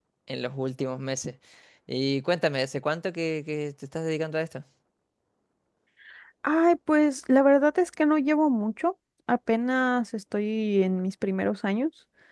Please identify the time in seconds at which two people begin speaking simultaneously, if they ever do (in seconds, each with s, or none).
none